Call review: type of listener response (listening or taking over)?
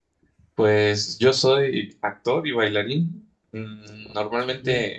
listening